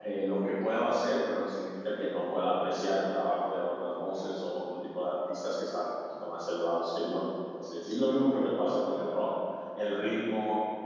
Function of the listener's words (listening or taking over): listening